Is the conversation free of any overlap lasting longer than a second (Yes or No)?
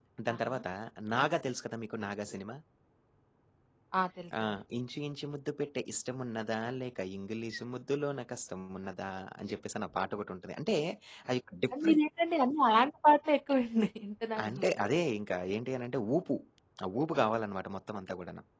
Yes